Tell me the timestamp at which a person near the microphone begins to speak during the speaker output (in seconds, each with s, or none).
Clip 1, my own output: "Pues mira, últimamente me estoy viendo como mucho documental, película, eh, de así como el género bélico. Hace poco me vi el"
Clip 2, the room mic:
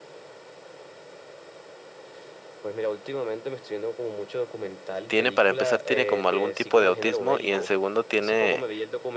5.1 s